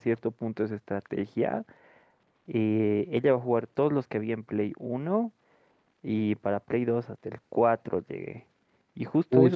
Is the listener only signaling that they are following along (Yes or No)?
Yes